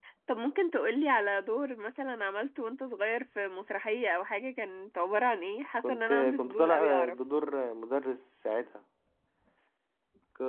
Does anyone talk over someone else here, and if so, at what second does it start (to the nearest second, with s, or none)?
6 s